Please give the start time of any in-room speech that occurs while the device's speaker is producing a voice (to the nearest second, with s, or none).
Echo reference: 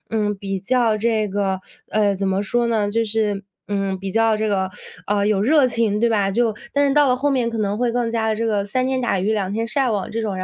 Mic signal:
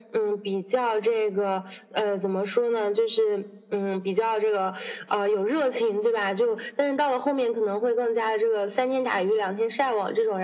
none